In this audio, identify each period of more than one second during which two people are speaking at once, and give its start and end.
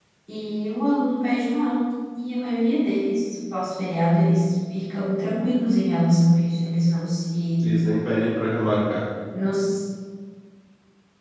none

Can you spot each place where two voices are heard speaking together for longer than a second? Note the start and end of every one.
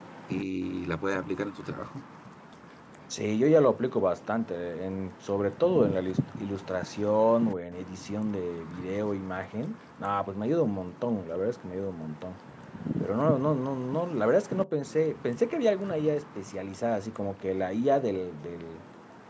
none

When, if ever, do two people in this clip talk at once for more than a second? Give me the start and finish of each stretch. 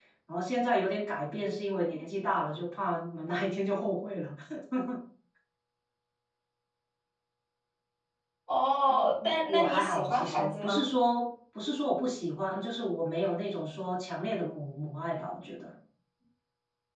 8.9-10.8

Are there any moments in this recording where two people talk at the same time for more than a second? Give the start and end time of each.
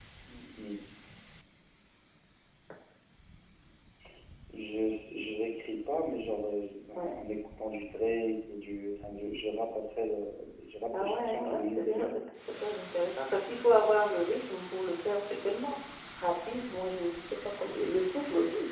10.9-12.2

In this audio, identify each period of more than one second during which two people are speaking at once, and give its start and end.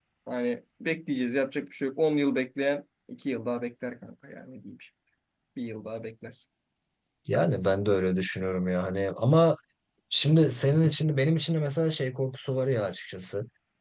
none

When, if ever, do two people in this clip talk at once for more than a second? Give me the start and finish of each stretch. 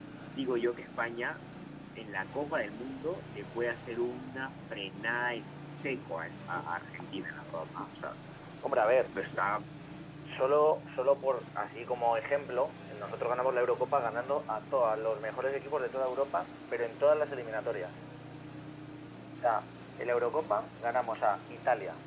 none

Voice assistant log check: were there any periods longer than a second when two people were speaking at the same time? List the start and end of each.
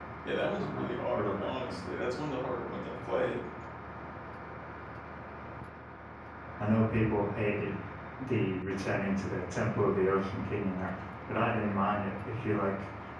0.6-1.8

